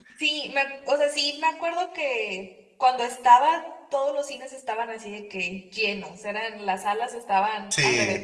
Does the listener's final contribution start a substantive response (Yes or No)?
No